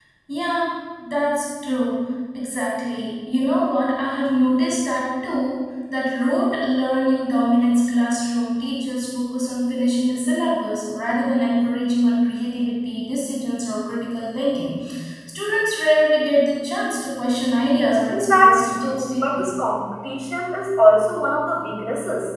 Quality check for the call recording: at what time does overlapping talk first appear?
18 s

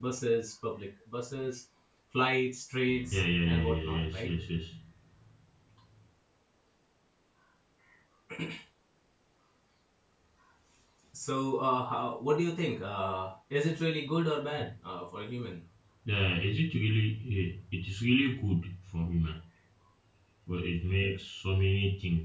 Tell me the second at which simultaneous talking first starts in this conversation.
3 s

